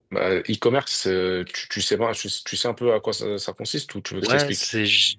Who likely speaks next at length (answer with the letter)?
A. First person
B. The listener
B